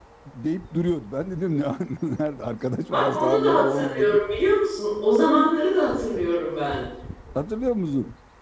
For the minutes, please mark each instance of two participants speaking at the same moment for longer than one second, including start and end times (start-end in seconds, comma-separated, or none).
2.9-4.2